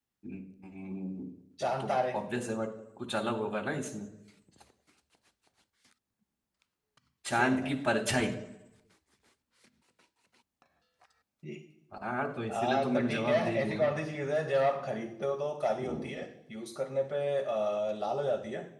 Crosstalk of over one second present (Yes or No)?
Yes